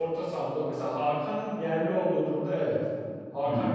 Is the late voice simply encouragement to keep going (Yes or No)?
Yes